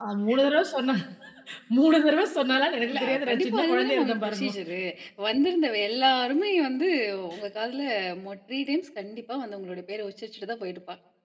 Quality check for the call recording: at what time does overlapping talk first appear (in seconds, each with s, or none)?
2.8 s